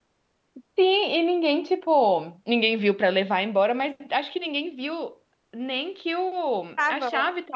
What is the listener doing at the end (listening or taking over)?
listening